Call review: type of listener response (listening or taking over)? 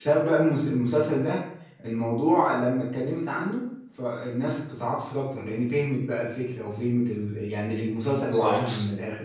listening